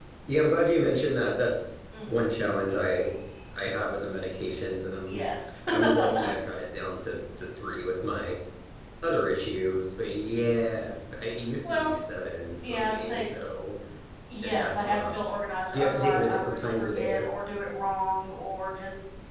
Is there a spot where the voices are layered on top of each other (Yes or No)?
Yes